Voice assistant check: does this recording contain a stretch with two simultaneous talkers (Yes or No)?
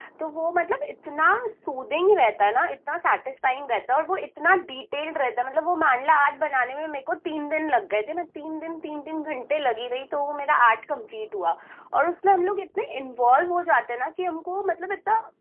No